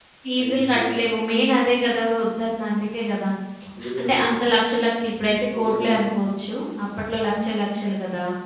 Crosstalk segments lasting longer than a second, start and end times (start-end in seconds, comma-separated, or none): none